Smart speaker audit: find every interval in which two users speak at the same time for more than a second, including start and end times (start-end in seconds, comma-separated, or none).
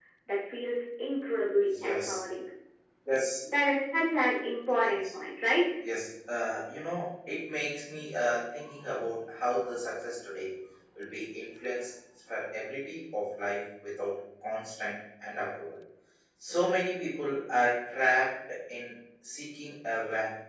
none